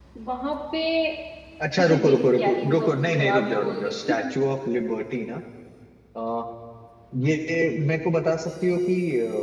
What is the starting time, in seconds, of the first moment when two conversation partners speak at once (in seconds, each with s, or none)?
1.8 s